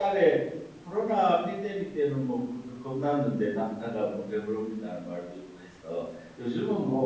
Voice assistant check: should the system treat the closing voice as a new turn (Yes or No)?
No